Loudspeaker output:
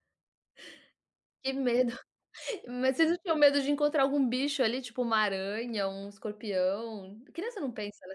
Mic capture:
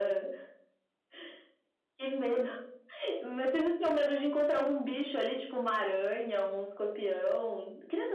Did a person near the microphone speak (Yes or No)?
No